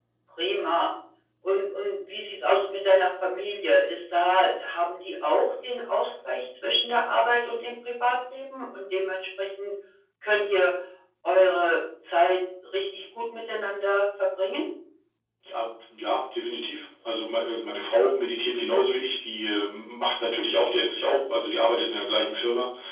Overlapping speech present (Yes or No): No